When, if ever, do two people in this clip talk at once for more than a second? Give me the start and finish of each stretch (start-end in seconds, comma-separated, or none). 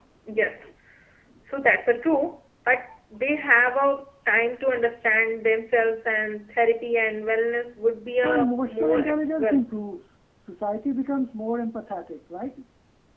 8.2-9.6